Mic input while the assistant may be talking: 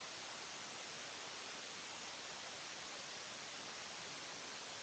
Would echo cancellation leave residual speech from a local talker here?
No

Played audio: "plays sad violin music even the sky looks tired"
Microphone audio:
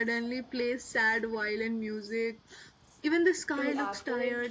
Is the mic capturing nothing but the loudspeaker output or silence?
No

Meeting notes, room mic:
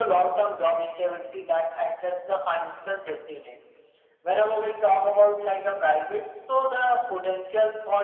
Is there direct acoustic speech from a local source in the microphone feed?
No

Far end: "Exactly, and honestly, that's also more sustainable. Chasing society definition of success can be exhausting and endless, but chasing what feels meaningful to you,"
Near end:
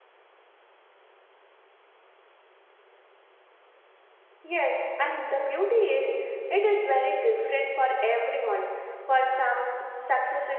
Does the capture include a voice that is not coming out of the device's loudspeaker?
Yes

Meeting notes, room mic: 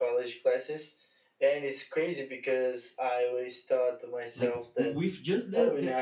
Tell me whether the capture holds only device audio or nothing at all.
No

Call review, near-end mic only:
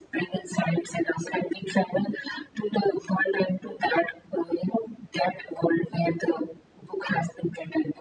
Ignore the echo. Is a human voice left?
No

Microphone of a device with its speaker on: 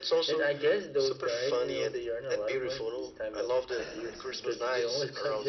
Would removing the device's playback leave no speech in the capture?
No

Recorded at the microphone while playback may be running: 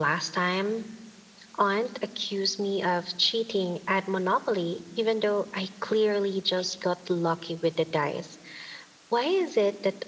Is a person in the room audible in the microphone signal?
No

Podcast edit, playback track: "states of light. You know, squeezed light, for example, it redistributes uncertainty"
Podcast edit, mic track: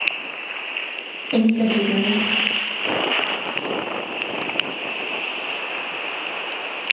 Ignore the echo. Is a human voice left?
Yes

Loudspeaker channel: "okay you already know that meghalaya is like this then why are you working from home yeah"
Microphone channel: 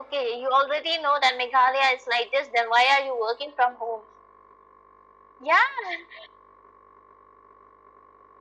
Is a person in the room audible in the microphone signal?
No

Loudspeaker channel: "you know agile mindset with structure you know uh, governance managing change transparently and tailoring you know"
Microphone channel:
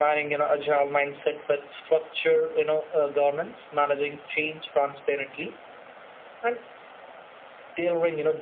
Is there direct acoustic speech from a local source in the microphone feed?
No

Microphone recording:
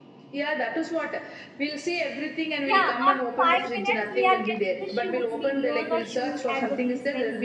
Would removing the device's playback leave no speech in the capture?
No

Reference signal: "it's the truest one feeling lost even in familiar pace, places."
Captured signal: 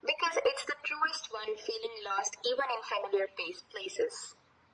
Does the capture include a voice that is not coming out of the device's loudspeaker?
No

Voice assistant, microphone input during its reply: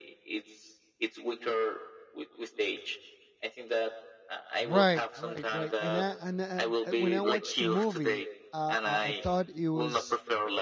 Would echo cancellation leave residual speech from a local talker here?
Yes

